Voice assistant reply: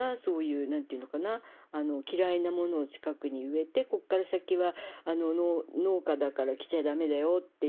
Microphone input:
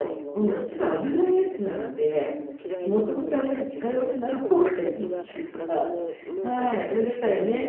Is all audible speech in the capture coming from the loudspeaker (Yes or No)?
No